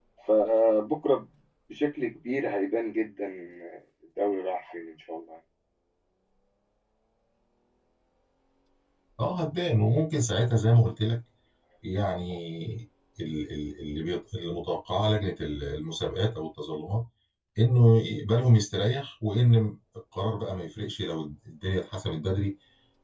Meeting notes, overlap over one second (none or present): none